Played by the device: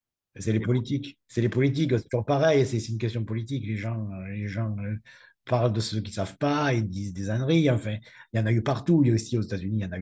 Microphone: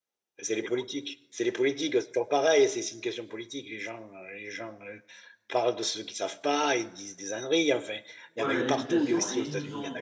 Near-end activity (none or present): present